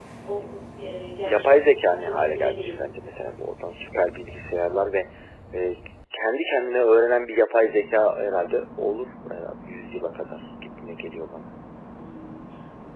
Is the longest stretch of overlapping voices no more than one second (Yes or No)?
No